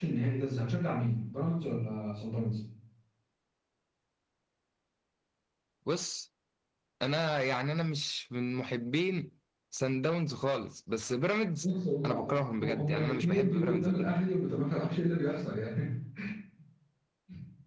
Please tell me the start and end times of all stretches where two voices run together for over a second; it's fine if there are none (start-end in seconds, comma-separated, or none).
12.1-13.9